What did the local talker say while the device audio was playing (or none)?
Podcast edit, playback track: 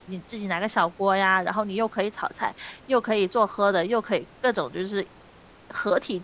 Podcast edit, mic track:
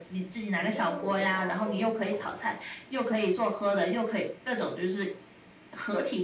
你可以跟狗说话啊，狗是听得懂的，